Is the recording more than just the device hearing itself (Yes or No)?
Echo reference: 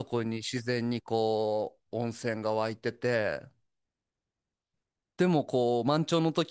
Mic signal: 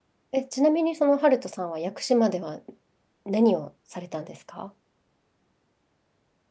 Yes